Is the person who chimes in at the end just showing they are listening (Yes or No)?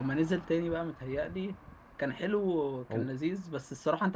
Yes